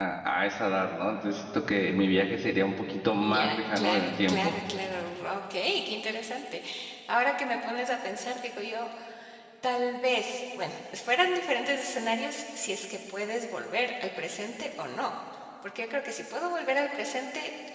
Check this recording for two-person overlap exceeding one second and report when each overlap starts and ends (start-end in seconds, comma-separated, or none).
3.3-4.5